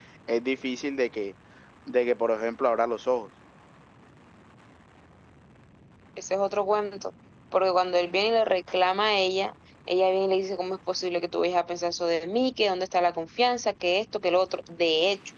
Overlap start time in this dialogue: none

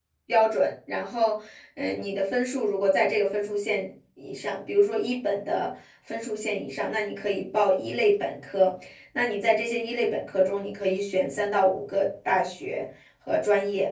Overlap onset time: none

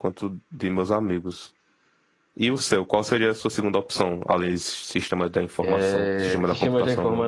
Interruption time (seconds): 5.6 s

